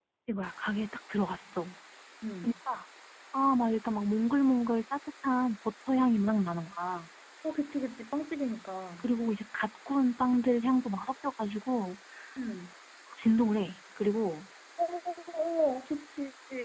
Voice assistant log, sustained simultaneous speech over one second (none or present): none